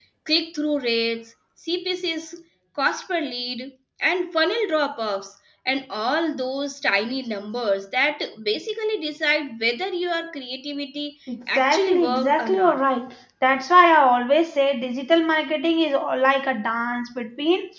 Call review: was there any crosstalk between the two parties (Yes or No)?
Yes